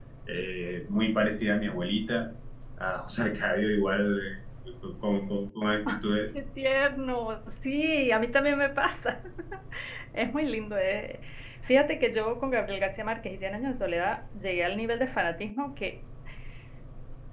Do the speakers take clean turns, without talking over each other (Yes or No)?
Yes